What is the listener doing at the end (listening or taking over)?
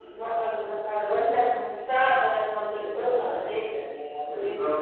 taking over